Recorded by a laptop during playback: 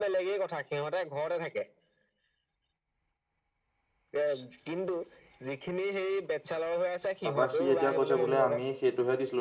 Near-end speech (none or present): present